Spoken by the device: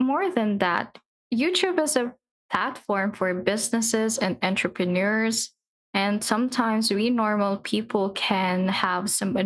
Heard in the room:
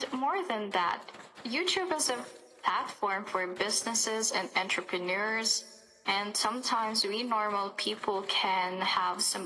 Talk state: echo only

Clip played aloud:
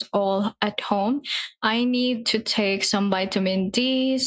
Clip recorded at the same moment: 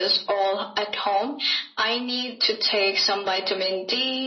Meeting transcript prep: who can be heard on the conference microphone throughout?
echo only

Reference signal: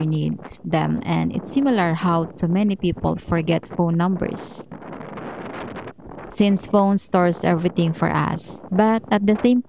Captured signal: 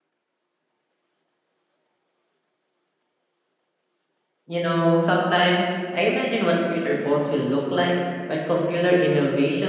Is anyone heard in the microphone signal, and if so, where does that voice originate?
user only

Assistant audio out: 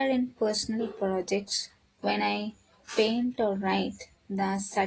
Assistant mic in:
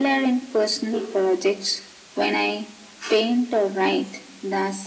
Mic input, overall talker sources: echo only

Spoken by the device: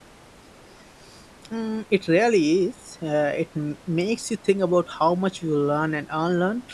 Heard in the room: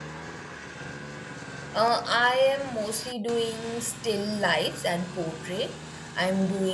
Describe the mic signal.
user only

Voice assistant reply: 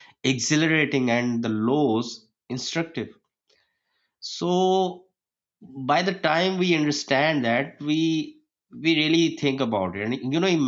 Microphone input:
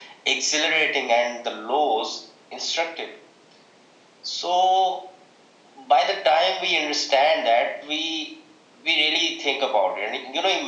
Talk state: echo only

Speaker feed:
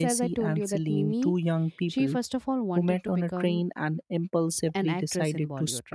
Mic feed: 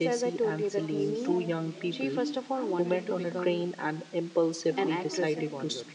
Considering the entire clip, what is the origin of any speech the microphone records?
both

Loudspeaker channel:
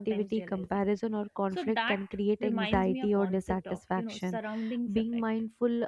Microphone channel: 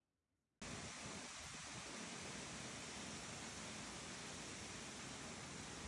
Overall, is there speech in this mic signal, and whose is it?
neither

